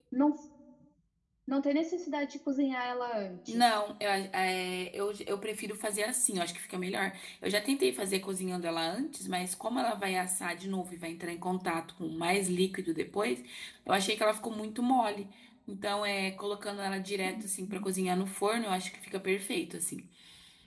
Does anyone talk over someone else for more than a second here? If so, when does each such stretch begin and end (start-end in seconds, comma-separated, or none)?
none